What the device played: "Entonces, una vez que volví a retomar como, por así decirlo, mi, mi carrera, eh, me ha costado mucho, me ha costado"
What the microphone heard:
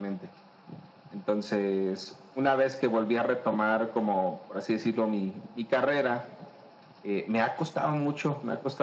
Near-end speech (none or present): none